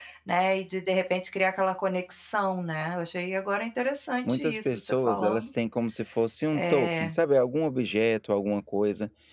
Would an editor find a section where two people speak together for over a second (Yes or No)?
Yes